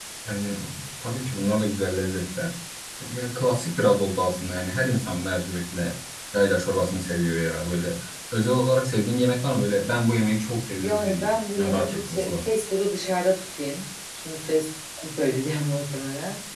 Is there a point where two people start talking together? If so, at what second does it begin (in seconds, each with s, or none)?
10.8 s